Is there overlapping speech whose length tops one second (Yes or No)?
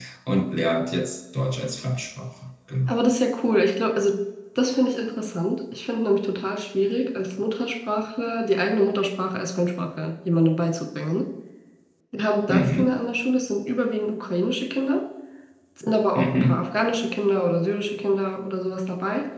No